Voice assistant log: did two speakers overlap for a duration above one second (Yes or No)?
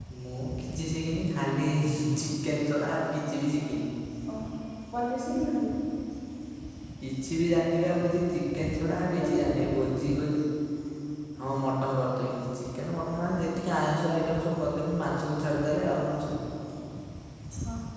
No